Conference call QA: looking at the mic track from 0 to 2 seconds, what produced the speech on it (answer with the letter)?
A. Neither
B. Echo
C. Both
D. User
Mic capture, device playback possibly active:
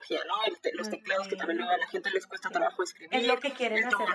C